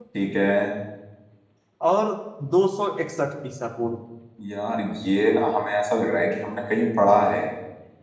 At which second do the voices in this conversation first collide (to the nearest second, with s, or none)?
none